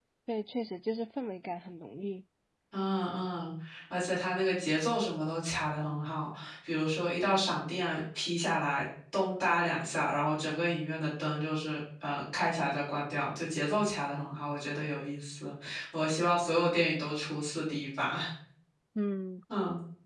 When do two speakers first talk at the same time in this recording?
none

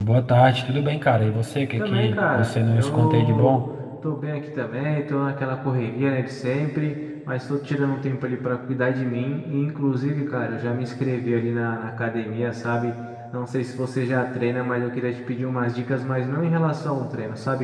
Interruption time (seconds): 2 s

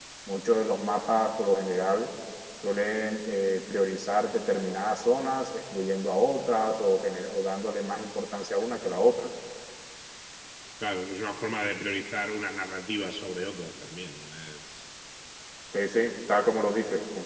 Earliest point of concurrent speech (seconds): none

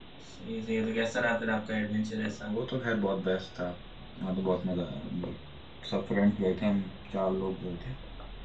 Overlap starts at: none

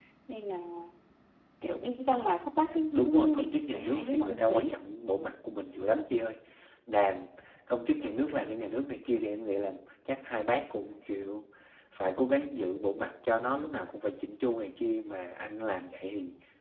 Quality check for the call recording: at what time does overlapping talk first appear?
3 s

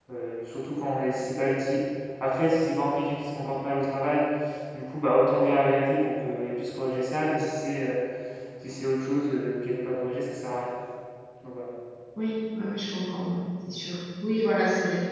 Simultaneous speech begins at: none

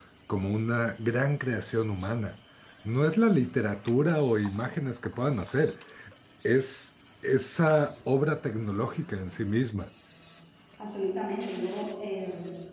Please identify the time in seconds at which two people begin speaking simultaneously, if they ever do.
none

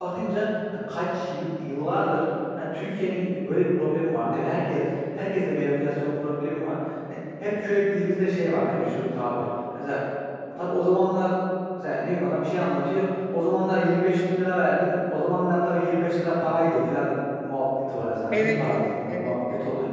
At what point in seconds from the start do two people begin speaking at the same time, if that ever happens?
18 s

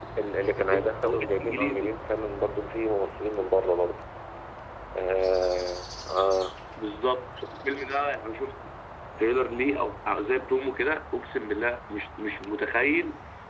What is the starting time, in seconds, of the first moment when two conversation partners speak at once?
1 s

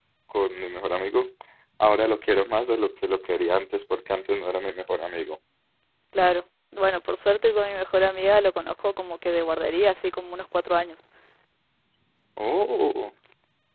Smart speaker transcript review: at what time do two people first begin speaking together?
none

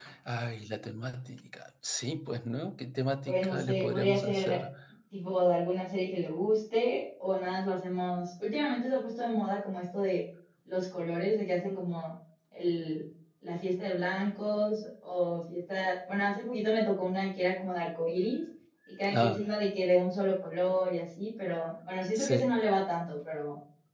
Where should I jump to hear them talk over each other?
3 s

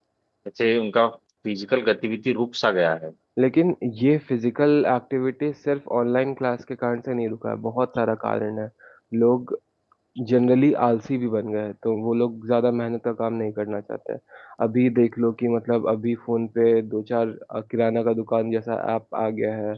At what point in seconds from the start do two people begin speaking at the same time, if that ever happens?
none

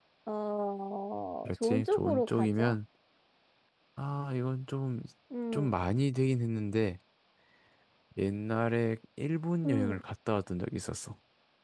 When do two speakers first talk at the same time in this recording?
1 s

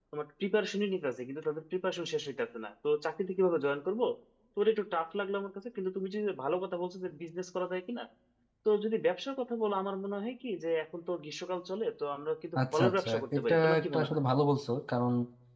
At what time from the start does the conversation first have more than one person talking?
13 s

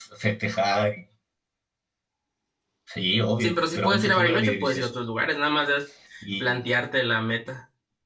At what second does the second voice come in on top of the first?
3 s

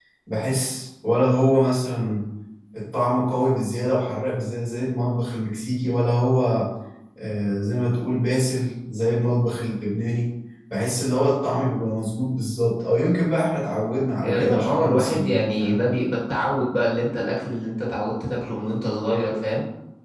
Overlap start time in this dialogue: 14 s

